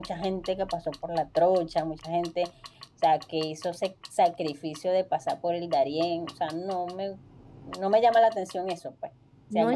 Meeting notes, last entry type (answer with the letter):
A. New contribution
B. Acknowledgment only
B